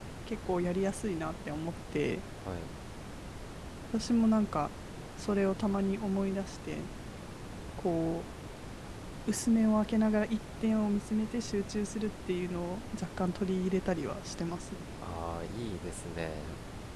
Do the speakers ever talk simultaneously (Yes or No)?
No